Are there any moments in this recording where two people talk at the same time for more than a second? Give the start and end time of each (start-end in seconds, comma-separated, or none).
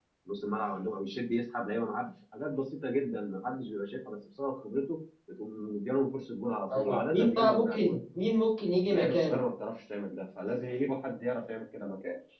6.7-8.0